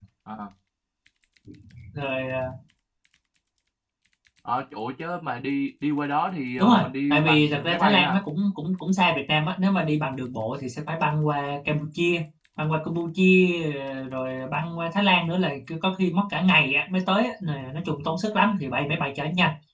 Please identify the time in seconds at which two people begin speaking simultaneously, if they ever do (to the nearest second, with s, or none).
7 s